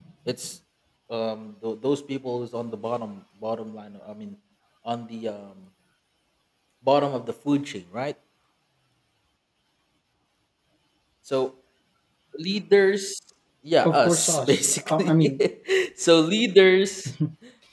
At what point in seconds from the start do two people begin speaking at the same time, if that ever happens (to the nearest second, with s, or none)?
14 s